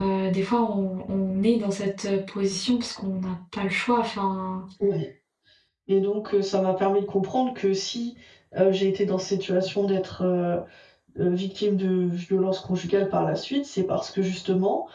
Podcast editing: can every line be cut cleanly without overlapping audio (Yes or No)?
Yes